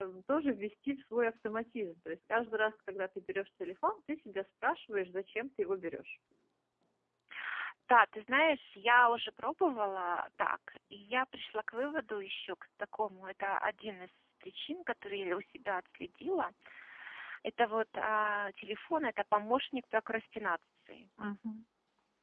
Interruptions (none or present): none